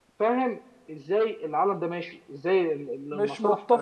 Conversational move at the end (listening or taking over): taking over